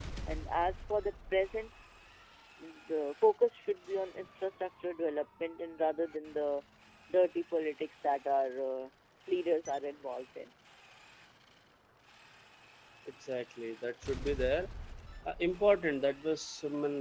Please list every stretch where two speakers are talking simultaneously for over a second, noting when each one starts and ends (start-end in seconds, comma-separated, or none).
none